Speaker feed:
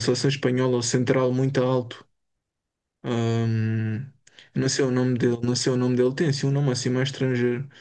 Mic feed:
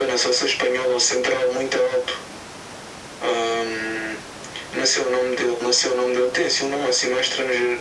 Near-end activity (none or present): none